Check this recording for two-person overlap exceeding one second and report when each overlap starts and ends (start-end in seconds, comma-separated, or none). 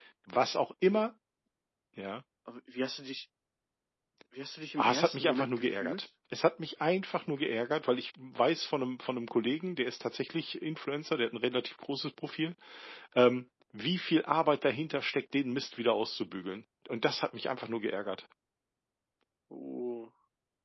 4.8-6.0